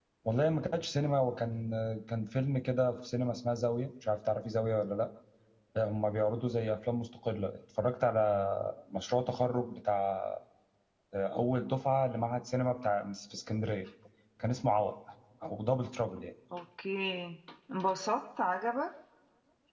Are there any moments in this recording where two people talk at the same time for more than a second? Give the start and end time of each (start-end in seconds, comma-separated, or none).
none